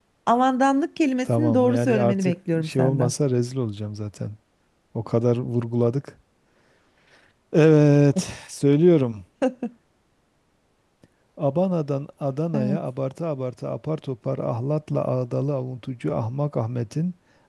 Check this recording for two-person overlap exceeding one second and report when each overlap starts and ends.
1.4-3.1

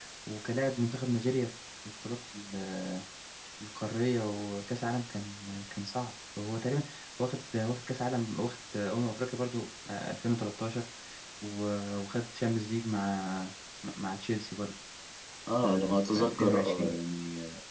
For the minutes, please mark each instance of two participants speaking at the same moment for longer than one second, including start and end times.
15.6-16.9

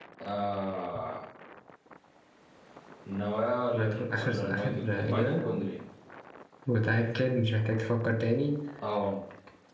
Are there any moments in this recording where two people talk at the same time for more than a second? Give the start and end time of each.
3.7-5.5

